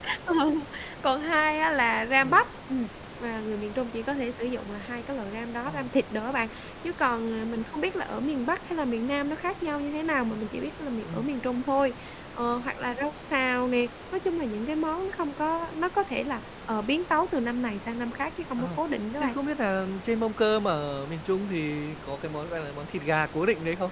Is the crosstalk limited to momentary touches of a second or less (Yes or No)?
Yes